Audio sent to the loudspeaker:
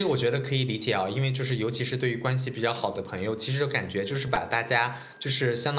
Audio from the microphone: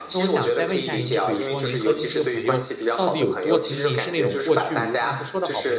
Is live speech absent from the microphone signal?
No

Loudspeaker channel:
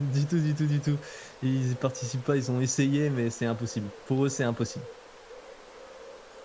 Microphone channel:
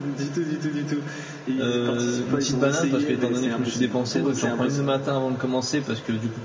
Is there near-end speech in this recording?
Yes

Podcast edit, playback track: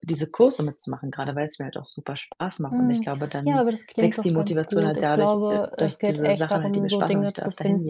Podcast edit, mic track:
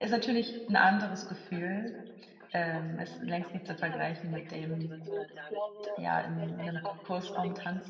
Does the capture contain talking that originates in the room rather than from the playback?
Yes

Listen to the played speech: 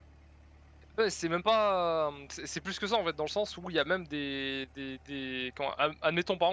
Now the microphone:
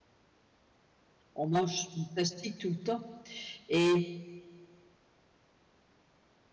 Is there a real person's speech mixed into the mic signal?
Yes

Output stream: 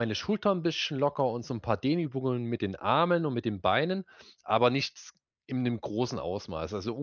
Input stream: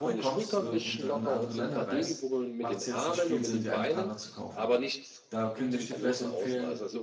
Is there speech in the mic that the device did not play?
Yes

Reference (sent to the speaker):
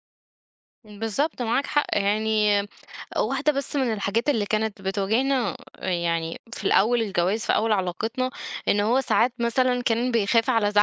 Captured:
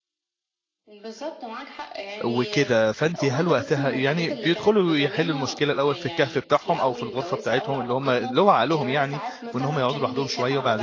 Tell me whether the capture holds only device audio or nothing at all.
No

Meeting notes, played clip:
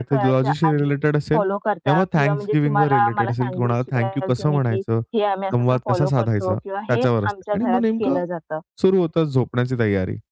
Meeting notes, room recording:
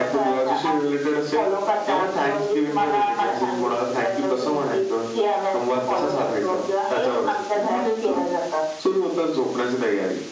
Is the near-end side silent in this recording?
Yes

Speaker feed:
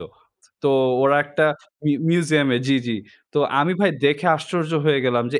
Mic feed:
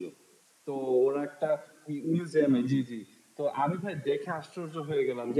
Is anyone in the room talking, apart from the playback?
No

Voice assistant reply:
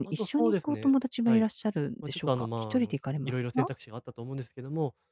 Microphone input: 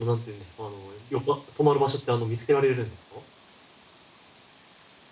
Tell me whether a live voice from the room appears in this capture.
Yes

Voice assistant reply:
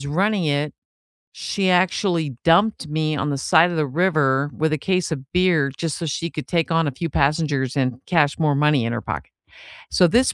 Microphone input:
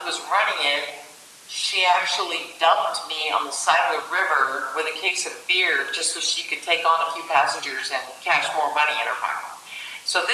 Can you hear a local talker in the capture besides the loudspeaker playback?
No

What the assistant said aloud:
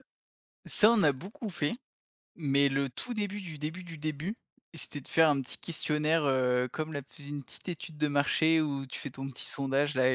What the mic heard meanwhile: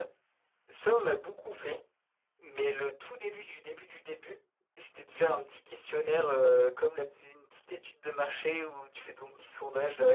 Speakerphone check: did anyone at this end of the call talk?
No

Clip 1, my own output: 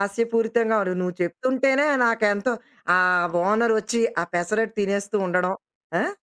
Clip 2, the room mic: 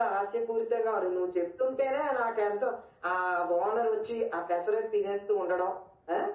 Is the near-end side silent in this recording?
Yes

